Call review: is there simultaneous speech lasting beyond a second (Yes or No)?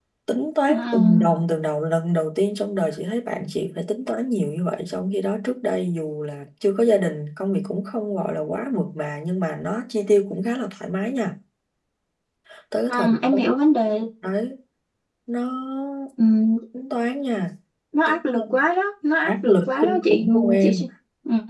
Yes